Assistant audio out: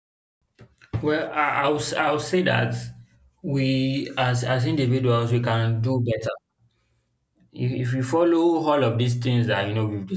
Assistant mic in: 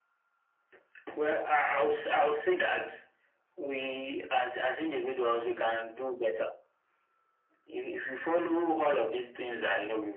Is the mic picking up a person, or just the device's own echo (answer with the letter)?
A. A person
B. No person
B